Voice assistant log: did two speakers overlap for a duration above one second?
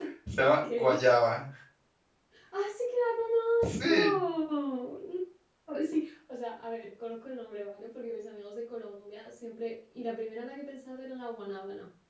No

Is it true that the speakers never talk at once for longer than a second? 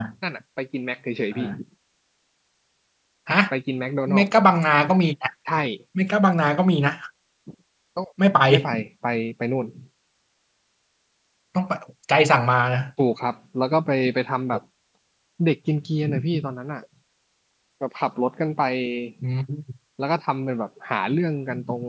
Yes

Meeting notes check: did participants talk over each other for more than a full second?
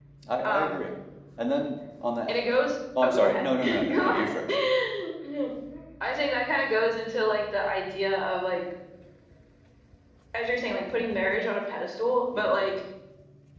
Yes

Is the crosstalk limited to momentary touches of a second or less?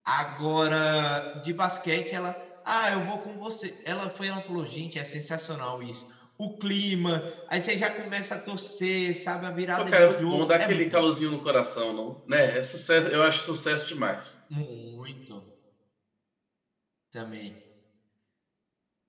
No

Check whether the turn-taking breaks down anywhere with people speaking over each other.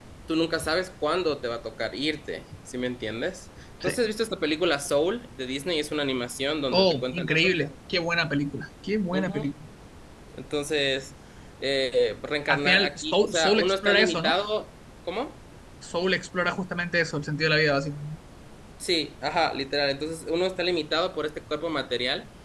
Yes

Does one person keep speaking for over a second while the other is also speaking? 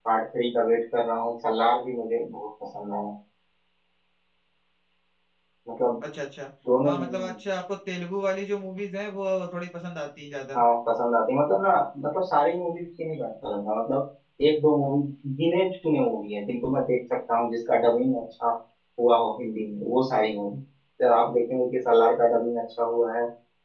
No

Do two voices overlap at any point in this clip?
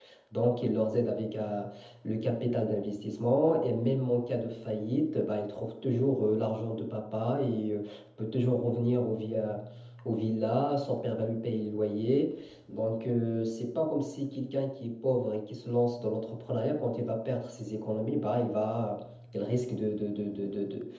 No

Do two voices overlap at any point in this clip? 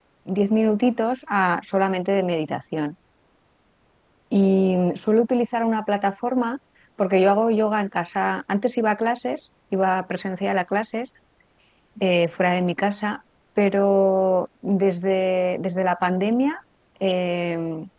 No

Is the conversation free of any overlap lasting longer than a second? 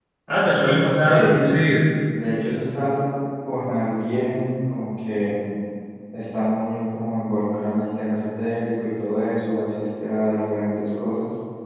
Yes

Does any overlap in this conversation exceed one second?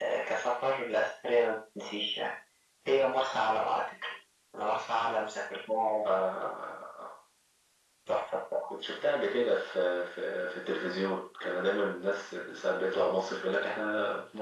No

